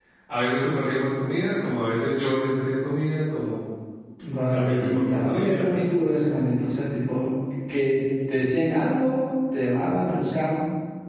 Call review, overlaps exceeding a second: present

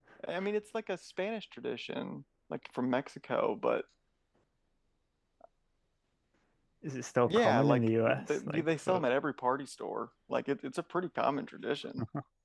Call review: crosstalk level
present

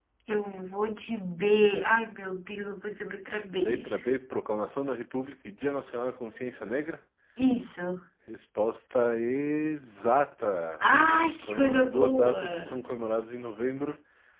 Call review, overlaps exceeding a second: present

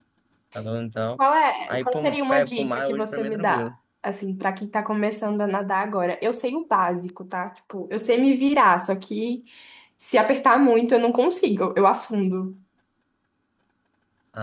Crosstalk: present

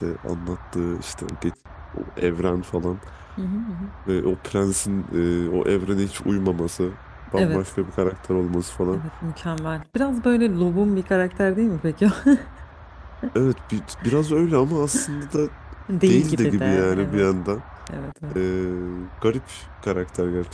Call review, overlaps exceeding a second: present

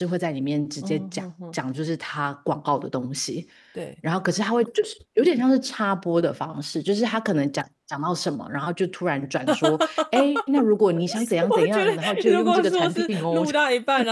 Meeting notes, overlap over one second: present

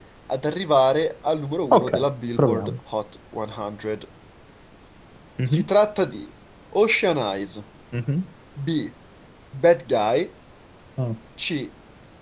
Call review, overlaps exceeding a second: none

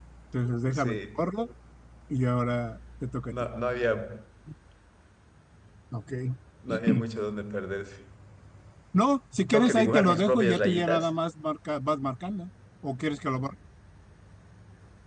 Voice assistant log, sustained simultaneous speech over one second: present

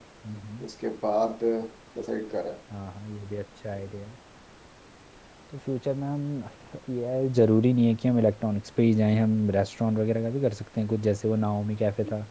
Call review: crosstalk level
none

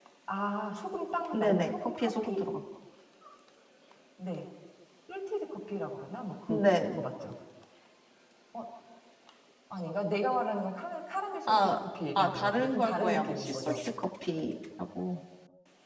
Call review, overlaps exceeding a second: present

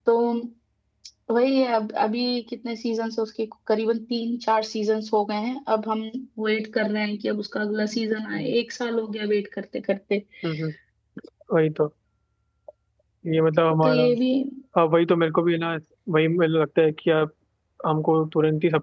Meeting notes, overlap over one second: none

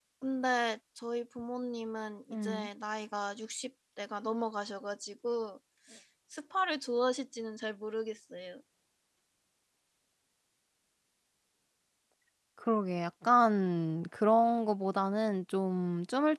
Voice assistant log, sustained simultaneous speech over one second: none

